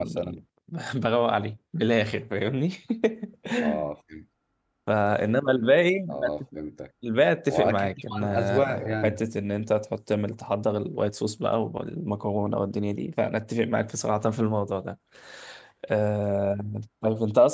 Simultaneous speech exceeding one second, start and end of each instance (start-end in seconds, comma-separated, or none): 7.5-9.2